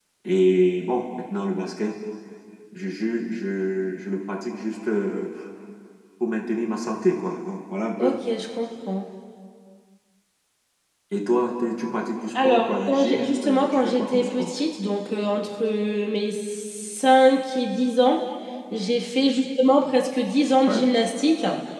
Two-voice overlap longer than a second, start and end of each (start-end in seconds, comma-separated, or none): 12.4-14.5